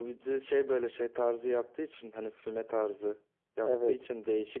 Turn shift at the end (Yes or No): No